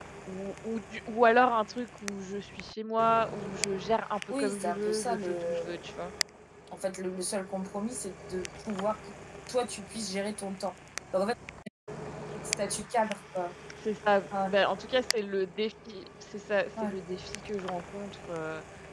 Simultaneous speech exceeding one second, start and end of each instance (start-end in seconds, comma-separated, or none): 4.3-5.8